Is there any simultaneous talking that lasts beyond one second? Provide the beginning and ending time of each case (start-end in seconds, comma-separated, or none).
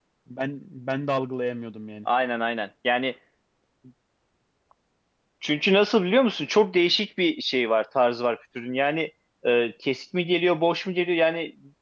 none